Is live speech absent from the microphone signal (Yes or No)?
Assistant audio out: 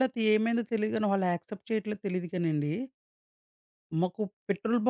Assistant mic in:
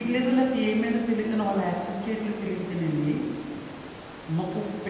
Yes